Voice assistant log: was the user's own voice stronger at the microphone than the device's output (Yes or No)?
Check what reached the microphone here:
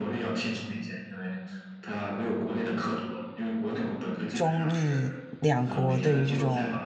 Yes